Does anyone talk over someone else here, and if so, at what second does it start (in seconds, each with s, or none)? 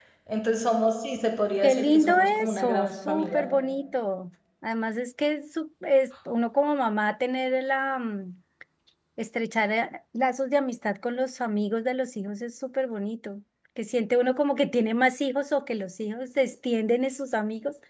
1.6 s